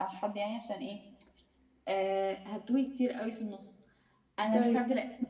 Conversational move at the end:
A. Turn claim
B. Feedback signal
B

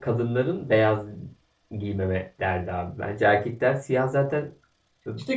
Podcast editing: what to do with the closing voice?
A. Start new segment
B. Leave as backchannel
A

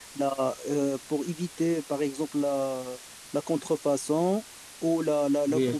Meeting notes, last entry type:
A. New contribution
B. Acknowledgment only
B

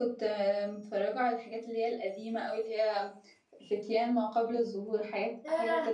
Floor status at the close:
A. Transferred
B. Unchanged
A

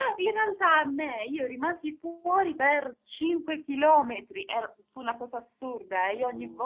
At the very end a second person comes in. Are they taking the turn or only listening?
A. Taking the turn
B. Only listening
B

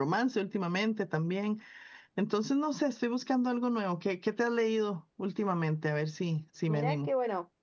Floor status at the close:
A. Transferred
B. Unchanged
A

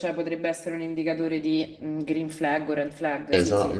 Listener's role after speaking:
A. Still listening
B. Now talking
B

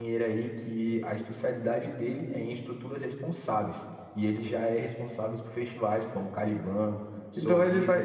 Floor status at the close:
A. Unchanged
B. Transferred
B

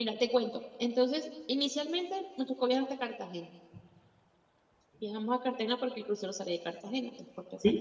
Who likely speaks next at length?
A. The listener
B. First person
A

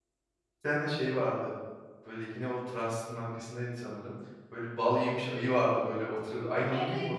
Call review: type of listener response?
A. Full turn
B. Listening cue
A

